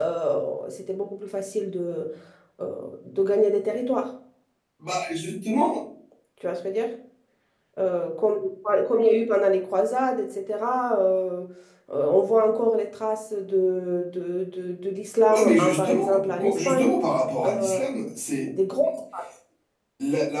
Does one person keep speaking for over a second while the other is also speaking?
Yes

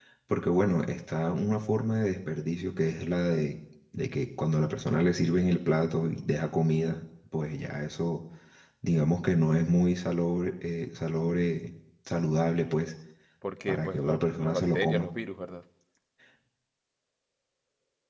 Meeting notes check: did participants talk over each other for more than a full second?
Yes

